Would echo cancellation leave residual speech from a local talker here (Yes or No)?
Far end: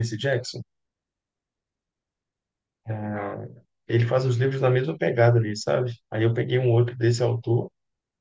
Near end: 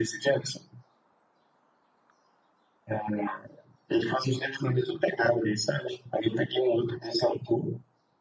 No